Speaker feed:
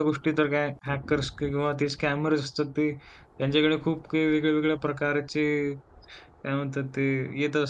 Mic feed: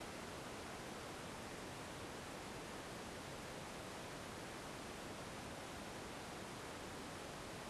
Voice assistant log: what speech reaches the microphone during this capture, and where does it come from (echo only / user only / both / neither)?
neither